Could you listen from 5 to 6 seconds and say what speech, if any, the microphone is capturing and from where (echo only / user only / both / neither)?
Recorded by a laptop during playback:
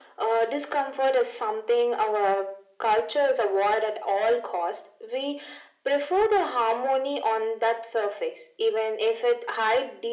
echo only